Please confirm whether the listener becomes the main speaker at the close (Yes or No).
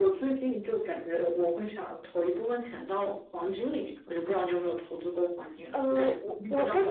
Yes